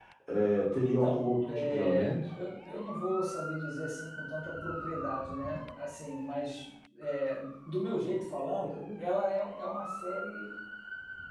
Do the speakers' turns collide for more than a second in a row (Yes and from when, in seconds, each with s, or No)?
Yes, from 0.8 s